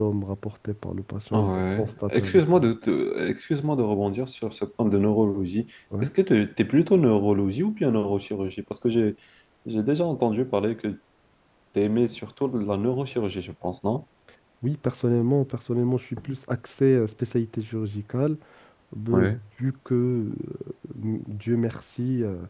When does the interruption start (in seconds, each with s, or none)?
1.3 s